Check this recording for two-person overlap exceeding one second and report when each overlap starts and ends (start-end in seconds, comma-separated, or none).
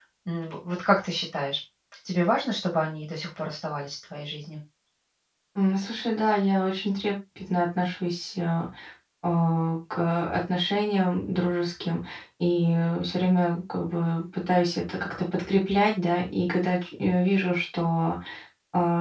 none